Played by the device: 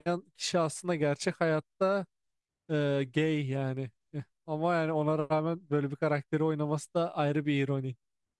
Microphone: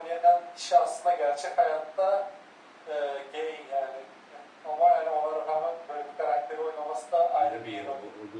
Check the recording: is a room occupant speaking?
Yes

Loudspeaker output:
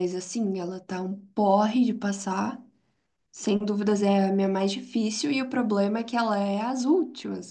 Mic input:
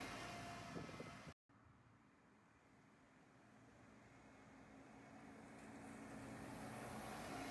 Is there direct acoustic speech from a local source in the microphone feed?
No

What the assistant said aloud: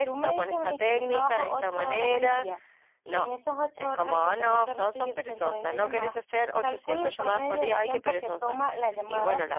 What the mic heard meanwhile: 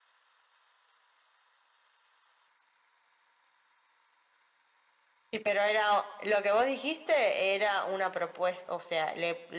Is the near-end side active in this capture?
Yes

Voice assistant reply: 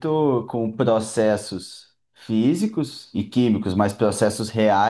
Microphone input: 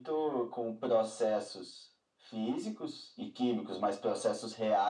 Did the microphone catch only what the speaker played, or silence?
Yes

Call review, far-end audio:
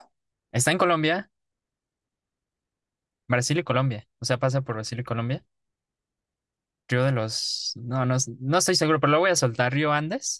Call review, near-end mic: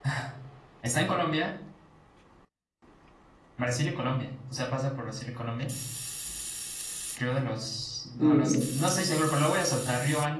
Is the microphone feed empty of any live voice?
No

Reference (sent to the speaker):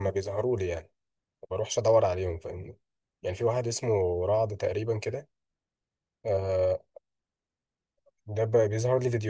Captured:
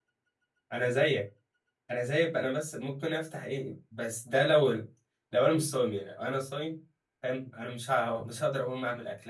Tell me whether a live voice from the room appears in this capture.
Yes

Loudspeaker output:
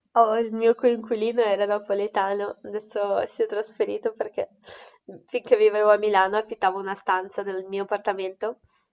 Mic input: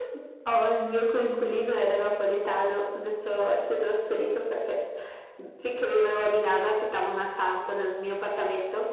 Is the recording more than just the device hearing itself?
No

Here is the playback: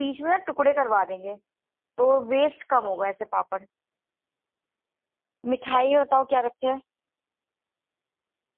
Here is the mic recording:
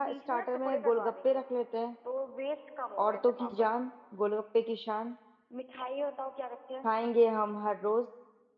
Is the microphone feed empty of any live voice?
No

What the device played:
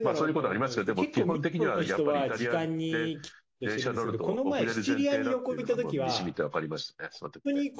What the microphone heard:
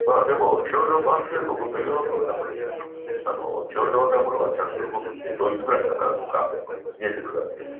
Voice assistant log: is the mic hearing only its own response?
No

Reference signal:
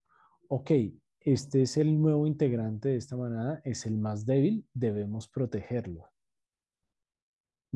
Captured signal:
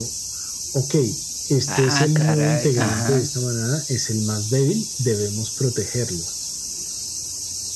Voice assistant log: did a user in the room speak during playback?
Yes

